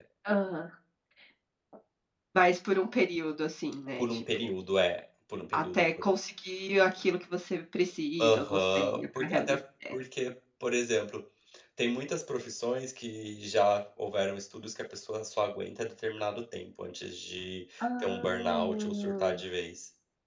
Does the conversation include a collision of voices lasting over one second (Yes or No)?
Yes